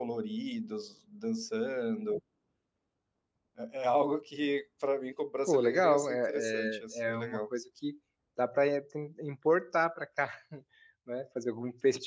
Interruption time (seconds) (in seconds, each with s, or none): 5.5 s